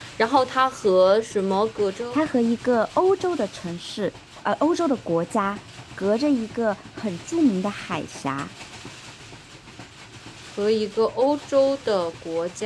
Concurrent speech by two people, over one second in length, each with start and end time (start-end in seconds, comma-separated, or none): none